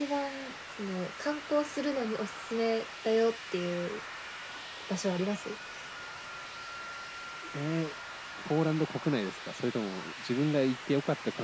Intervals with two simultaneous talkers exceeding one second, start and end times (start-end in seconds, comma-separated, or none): none